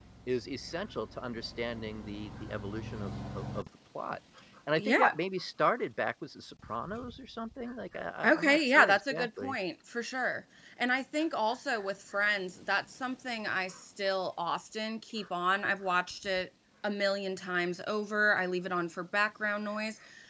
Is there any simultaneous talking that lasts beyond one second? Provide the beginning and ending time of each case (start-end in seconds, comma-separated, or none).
8.2-9.6